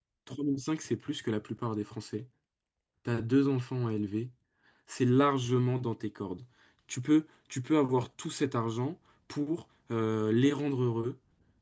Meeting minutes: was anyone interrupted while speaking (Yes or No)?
No